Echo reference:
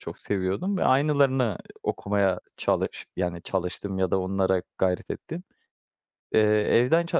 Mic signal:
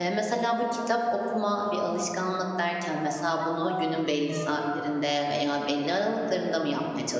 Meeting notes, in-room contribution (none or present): present